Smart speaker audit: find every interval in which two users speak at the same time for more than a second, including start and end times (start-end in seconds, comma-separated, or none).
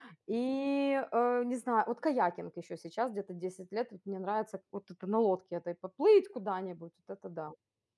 none